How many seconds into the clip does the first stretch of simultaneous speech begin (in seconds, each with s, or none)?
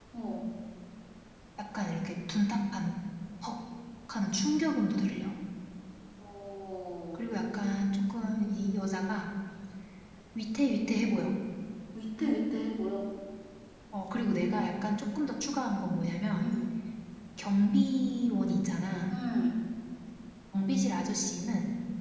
none